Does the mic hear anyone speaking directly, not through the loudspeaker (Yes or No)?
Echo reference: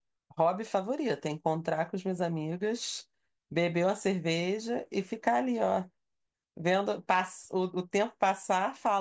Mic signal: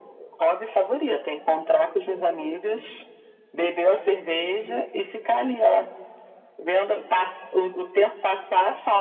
No